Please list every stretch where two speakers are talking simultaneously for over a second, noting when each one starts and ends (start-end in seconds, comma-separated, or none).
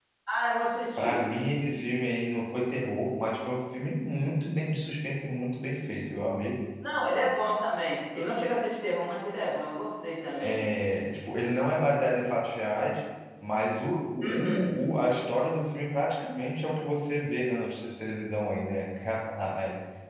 none